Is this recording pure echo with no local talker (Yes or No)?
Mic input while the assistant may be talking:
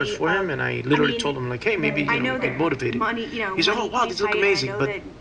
No